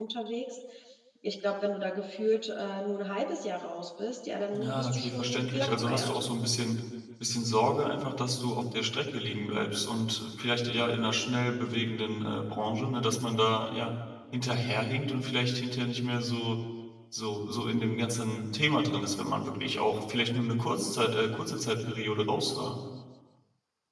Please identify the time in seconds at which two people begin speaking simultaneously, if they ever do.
5 s

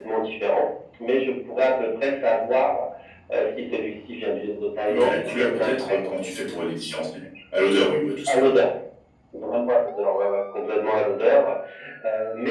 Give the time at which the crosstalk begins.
5 s

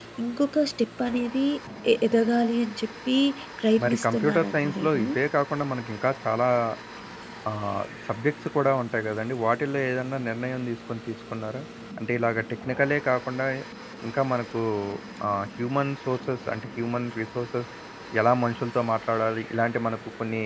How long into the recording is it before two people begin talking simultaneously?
4 s

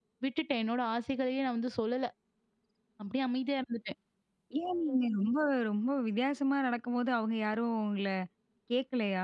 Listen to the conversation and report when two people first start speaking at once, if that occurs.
none

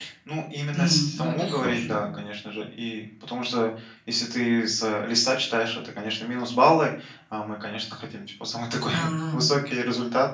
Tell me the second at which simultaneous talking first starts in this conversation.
1 s

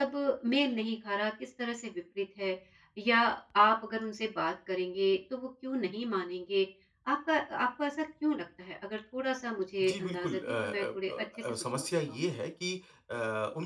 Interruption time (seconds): 10 s

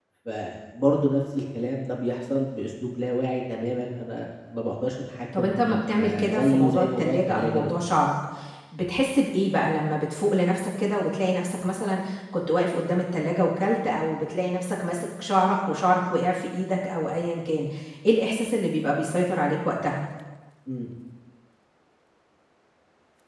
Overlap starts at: 5 s

